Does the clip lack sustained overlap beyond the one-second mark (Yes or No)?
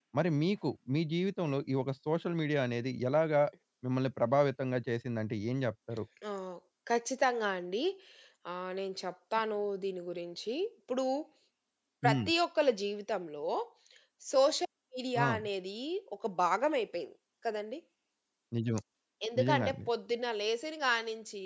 Yes